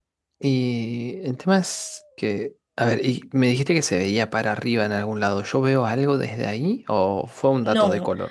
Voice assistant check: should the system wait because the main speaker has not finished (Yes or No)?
No